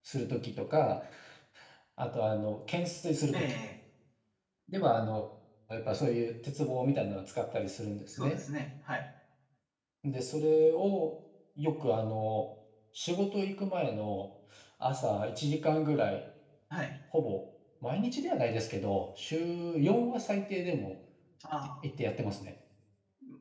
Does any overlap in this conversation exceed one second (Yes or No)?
No